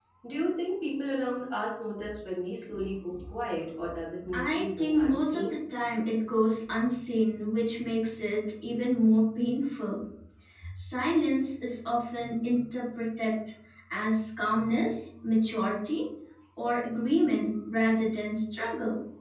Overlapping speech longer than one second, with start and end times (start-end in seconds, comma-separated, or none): 4.3-5.5